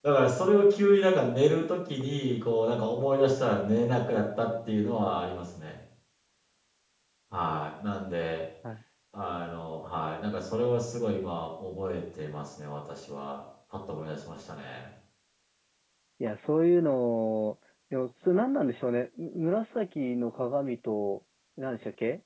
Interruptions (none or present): none